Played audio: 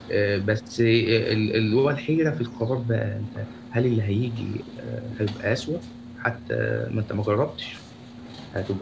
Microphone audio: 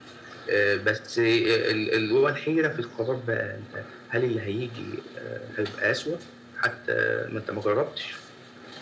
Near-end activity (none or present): none